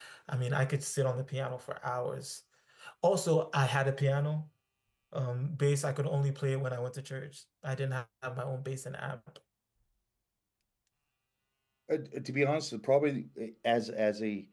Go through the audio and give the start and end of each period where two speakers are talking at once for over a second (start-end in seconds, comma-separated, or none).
none